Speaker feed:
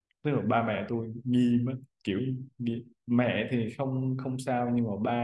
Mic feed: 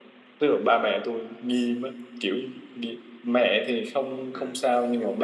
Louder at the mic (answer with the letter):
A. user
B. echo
B